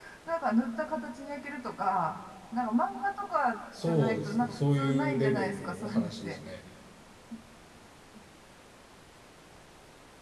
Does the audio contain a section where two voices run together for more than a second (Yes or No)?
Yes